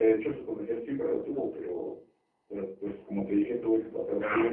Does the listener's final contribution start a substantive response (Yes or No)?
No